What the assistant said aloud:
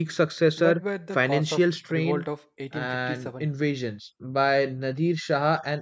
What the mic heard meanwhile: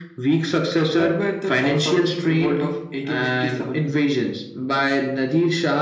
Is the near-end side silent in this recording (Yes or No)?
Yes